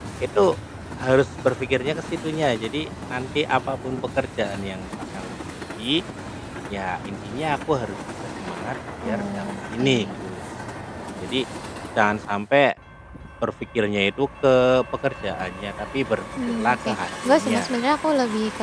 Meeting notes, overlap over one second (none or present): present